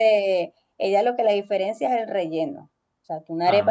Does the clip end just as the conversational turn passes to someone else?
No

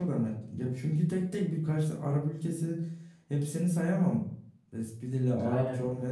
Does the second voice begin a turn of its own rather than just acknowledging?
No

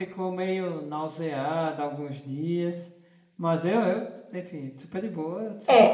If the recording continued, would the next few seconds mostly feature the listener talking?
Yes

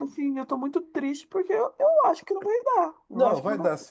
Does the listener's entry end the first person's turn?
Yes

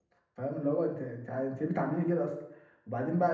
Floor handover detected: No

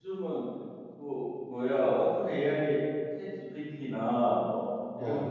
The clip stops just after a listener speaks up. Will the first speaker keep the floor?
Yes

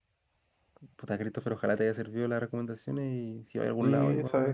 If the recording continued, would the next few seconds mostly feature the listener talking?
Yes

